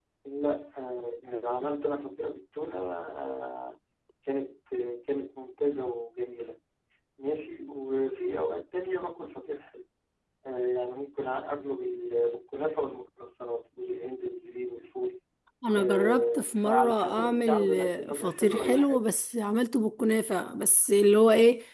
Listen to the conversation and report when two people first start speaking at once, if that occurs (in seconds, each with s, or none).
15.7 s